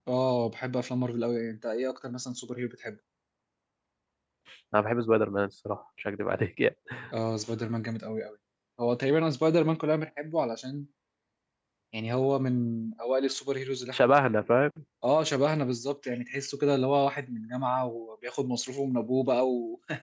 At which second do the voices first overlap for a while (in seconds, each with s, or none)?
none